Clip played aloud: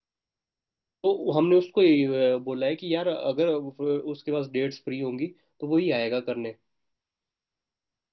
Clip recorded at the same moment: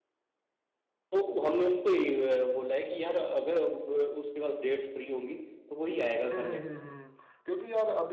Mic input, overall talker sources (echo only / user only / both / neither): both